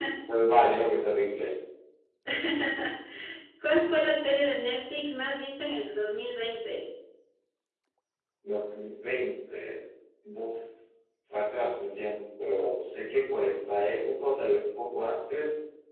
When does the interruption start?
none

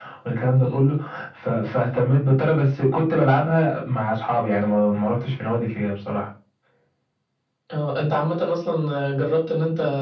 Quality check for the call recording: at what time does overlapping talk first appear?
none

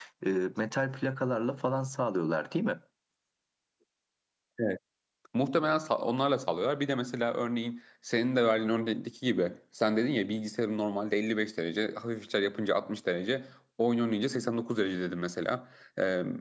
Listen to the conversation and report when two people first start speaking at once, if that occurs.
none

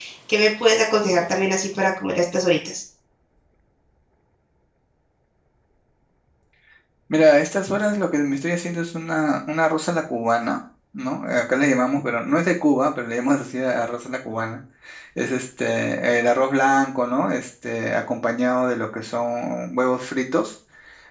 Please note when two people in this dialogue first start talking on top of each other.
none

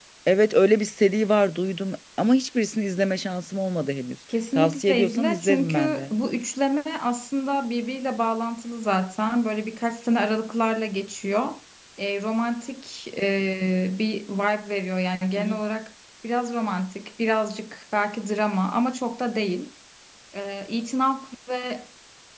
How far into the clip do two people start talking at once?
4.5 s

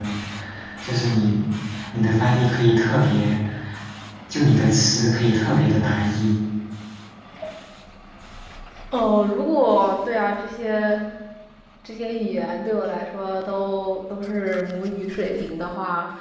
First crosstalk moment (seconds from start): none

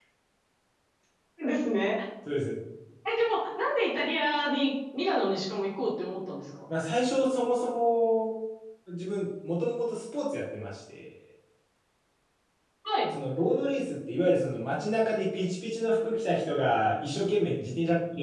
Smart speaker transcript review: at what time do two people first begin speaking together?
none

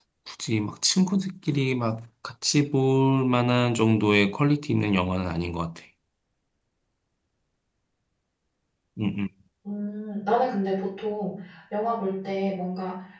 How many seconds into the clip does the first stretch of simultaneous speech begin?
none

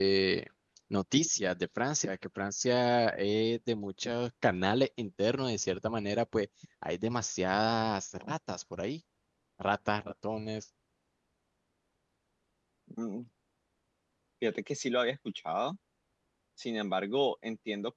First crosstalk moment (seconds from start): none

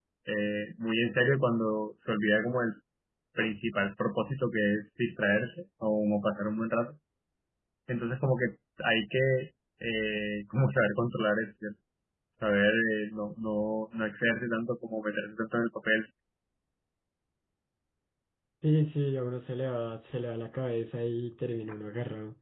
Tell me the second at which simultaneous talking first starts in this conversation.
none

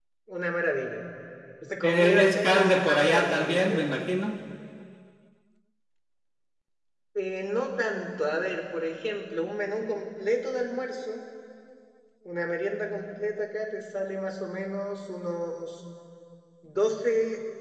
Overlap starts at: 1.8 s

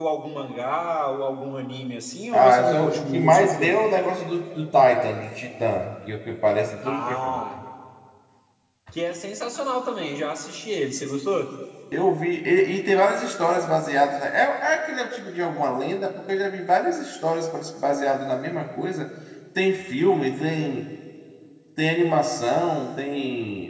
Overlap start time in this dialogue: 2.3 s

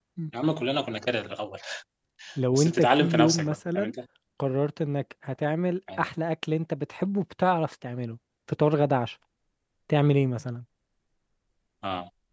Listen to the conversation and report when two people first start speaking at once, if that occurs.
2.5 s

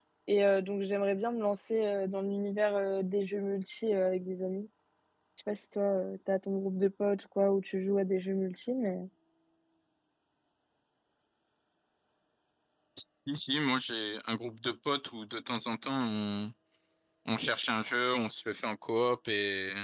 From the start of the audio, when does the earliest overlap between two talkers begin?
none

